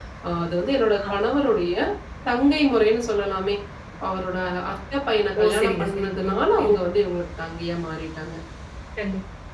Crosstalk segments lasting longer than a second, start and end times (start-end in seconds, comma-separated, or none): 5.4-6.8